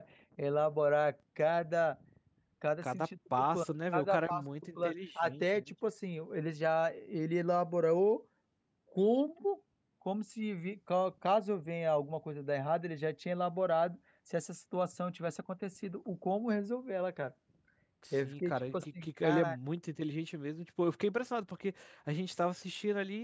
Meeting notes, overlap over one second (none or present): present